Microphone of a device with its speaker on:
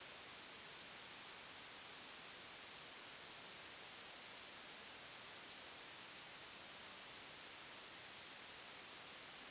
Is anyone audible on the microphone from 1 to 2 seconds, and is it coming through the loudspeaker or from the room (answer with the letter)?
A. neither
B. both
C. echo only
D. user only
A